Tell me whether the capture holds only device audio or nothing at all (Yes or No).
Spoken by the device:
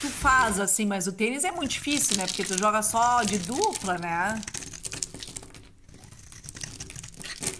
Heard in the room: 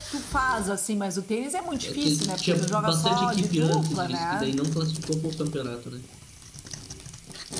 No